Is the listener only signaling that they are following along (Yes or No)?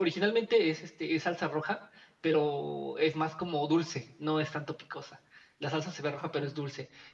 Yes